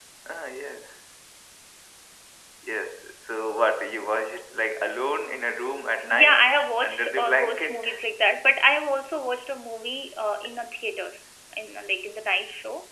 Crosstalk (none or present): present